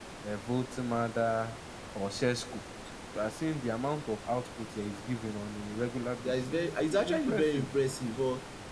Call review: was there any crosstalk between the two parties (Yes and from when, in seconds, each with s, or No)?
Yes, from 6.2 s